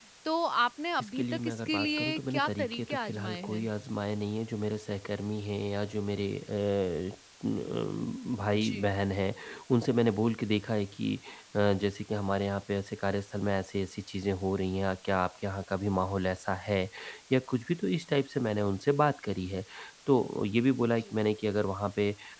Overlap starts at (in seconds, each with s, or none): 1.0 s